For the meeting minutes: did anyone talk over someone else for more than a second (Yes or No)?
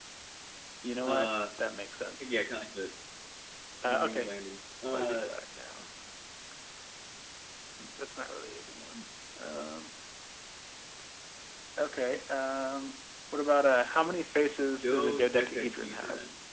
Yes